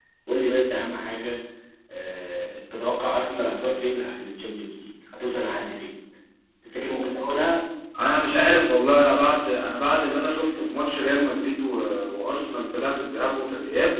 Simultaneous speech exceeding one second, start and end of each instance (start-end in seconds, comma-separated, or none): none